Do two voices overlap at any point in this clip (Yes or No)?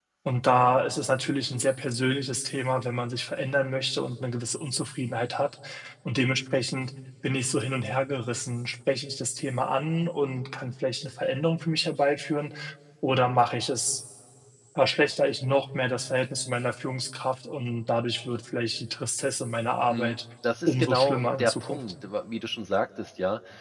Yes